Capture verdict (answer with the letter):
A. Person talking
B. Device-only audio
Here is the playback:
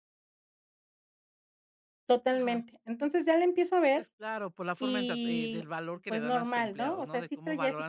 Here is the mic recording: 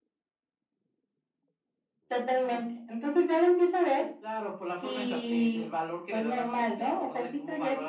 B